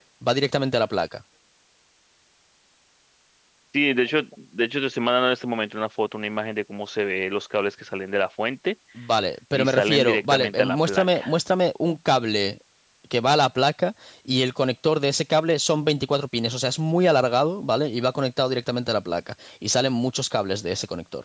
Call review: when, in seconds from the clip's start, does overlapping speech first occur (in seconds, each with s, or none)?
9.5 s